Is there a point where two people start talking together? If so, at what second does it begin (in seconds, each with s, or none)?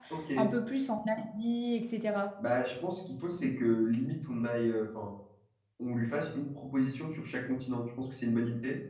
none